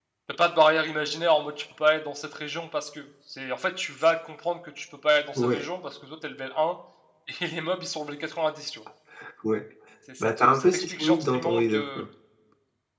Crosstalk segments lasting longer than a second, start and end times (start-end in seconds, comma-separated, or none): 10.2-12.0